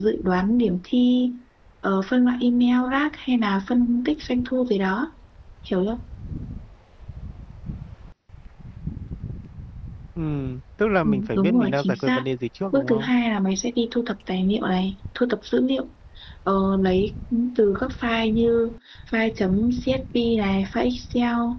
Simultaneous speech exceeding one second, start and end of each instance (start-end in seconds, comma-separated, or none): 11.0-12.2